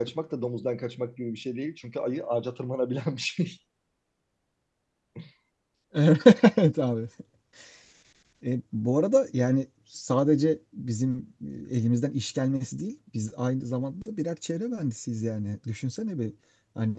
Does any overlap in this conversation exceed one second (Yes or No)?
No